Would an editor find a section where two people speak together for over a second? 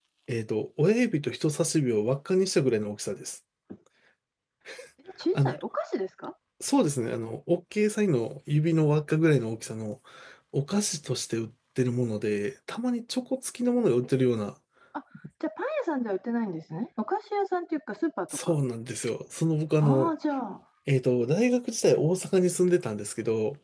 No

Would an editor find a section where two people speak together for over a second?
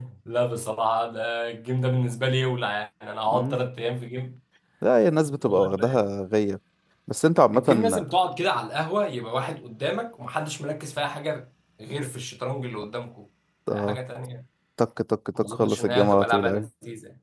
Yes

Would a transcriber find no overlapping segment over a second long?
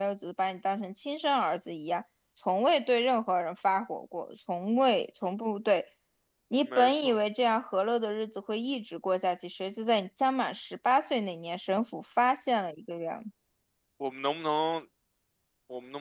Yes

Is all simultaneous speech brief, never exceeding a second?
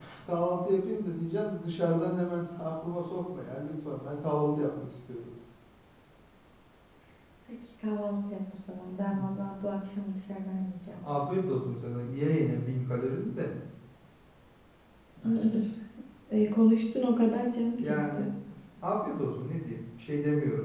Yes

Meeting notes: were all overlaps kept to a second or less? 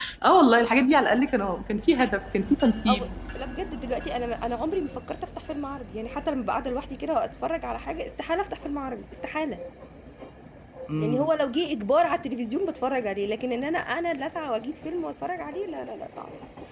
Yes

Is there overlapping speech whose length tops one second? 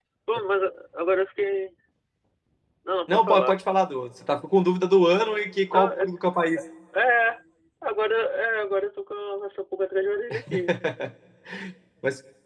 No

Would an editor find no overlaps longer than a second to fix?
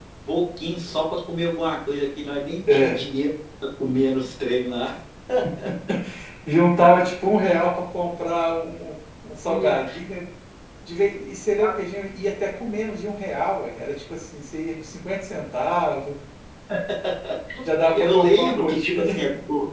No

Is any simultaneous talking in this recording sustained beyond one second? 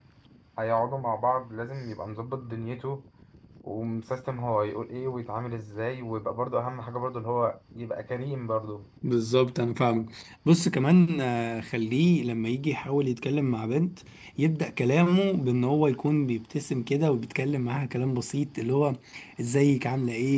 No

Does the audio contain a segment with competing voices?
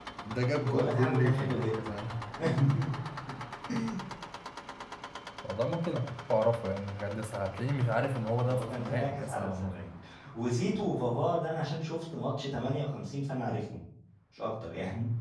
Yes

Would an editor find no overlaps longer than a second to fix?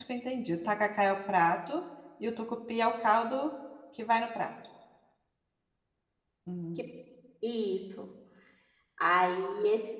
Yes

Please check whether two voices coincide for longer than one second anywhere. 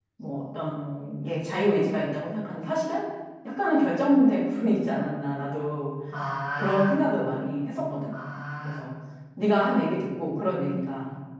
No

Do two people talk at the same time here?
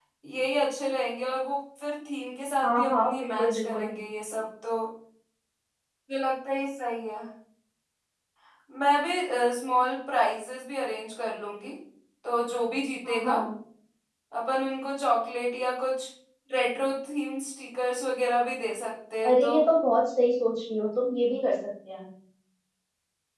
Yes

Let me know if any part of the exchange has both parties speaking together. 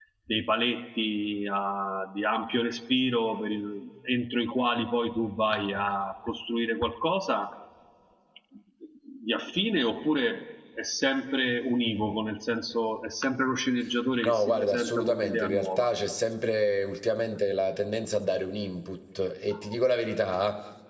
Yes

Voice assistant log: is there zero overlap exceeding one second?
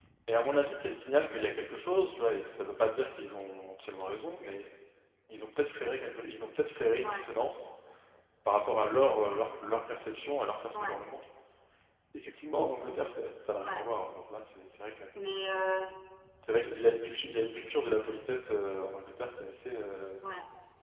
Yes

